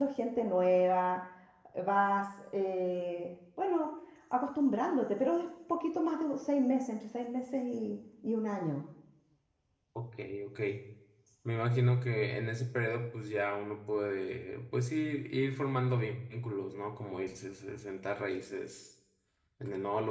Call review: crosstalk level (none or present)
none